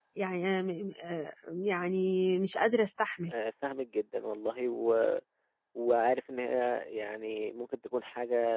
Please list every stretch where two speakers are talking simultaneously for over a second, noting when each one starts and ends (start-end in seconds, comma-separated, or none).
none